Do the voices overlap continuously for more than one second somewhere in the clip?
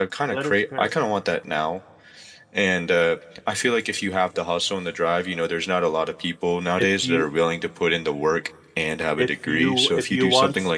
Yes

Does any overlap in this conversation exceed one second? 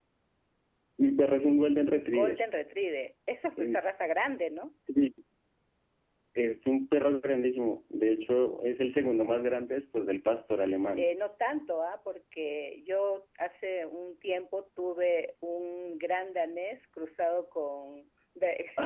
No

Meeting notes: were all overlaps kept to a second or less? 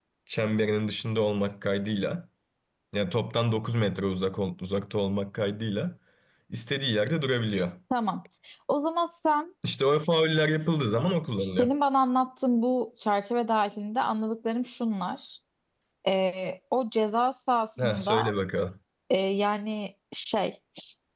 Yes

